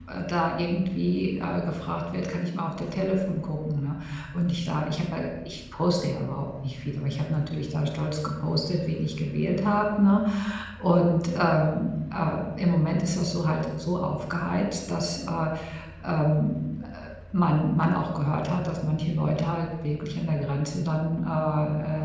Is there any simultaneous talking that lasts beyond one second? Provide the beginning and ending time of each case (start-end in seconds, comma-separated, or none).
none